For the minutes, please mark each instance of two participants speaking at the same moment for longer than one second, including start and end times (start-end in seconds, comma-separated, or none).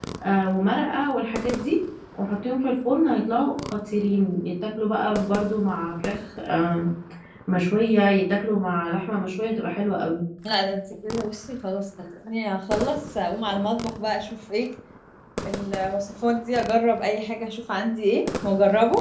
none